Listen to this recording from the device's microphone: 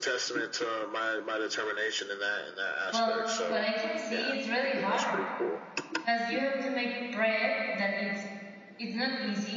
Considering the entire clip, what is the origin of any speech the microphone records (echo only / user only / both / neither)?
both